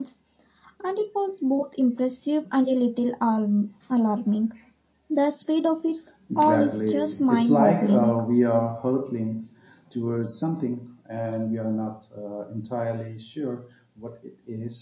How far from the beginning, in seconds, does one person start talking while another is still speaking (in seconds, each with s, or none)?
6.3 s